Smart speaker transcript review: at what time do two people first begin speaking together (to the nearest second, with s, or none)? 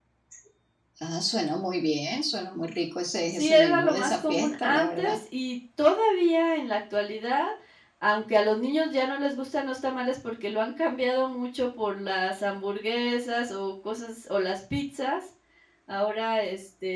3 s